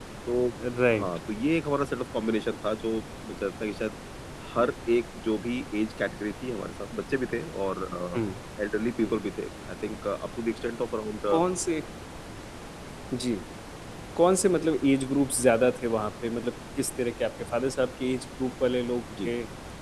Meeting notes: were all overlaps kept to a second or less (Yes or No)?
Yes